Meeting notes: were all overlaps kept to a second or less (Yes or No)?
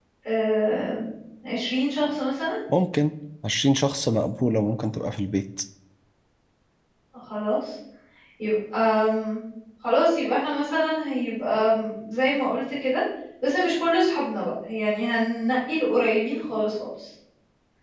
Yes